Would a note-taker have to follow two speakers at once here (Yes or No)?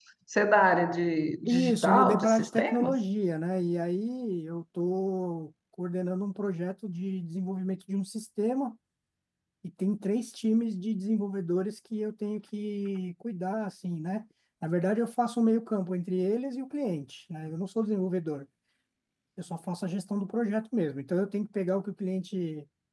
Yes